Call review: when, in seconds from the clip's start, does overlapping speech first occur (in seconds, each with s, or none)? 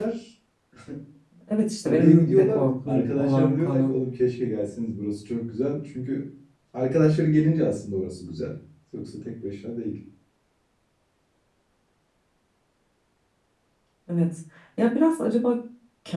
1.8 s